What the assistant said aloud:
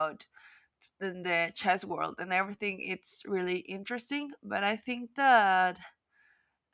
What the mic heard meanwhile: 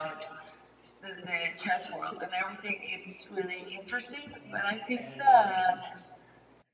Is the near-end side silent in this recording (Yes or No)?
No